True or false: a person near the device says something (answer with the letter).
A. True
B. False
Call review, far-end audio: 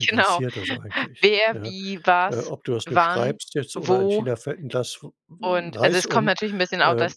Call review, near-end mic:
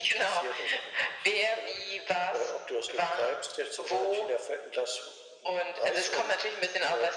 B